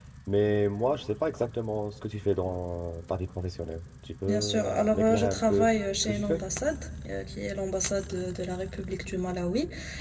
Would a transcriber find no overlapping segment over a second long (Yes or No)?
No